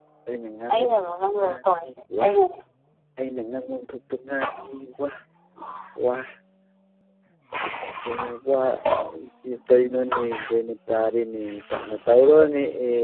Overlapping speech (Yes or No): Yes